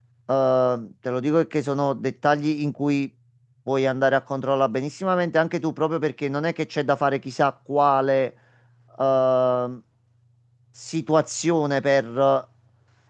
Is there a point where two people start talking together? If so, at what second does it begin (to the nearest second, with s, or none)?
none